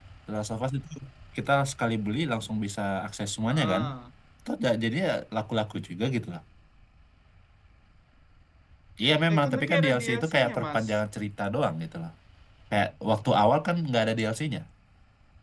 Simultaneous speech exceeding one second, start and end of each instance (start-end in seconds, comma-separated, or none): 9.3-10.8